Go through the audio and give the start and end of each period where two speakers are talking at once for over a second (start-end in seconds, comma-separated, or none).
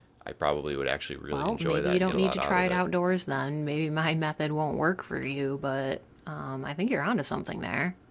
1.3-2.8